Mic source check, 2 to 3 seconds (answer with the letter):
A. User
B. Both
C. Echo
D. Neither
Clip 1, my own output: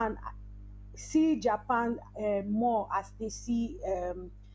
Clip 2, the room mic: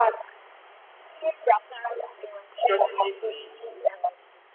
B